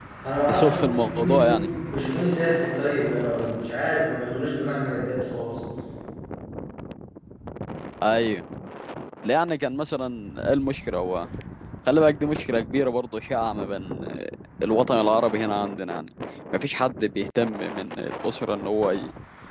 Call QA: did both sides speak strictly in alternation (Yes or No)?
No